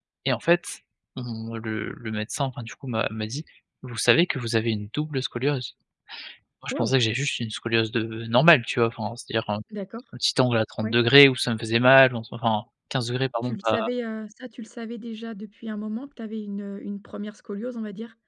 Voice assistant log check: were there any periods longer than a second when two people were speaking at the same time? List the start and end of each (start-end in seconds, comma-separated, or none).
none